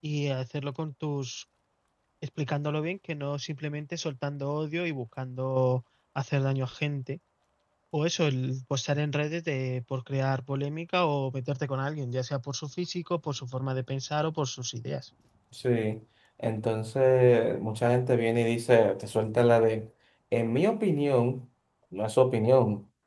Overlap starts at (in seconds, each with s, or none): none